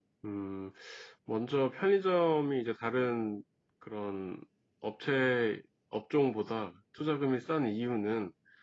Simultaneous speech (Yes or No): No